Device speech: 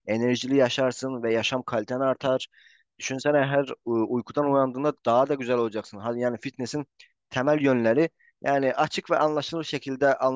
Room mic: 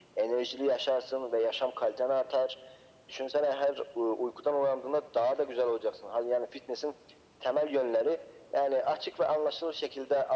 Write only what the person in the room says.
none

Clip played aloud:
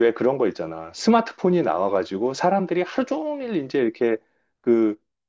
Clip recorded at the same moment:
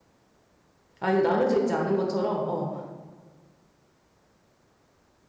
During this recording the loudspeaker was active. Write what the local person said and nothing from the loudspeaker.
아, 이게 나뉘어져 있지 않은 것처럼 어,

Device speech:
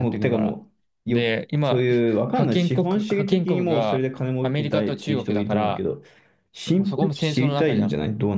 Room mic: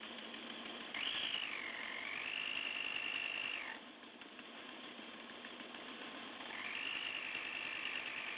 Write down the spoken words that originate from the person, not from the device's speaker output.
none

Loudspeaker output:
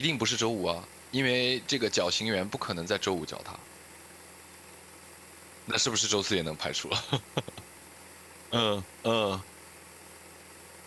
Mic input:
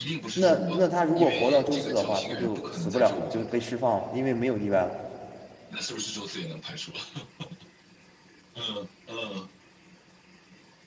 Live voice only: 那那他如果活到周四的话，他就死不了了，就被释放了，因为没有意外了。

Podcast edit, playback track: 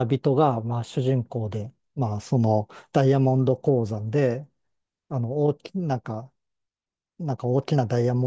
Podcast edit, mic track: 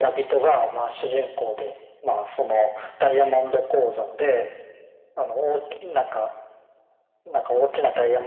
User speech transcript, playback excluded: none

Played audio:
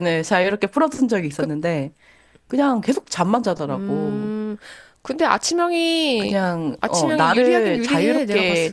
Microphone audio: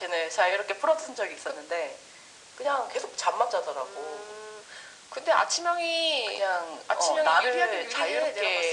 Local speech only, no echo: none

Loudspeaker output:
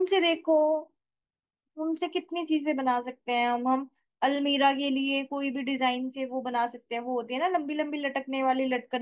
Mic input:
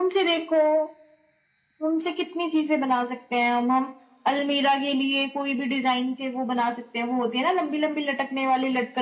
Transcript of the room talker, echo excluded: none

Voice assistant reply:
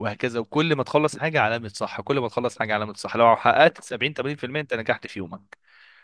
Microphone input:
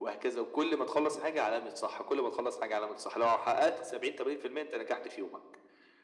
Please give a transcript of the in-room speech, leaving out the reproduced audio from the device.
none

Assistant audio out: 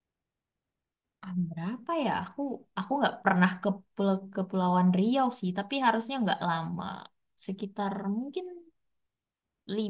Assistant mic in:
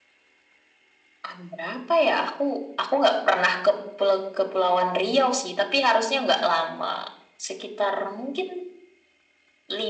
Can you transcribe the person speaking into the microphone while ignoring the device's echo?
none

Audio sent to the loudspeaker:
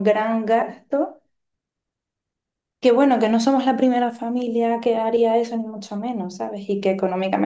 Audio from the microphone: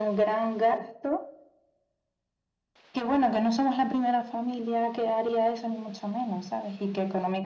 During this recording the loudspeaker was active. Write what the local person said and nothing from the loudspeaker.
none

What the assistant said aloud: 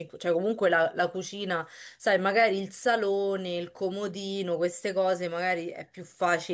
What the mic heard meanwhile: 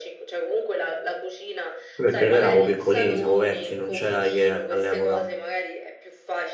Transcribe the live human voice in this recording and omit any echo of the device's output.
quello perché noi eravamo piccolini, siamo vecchi, non c'era IKEA all'epoca.

